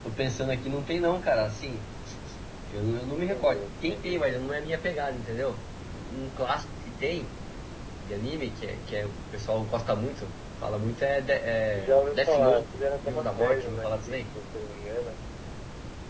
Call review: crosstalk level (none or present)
present